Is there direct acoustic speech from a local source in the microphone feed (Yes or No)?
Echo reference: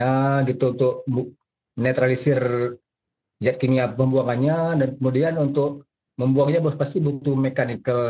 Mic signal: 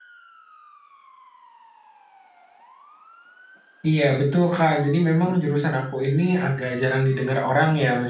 Yes